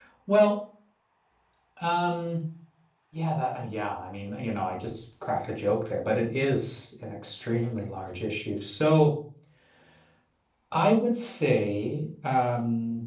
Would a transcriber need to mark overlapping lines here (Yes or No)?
No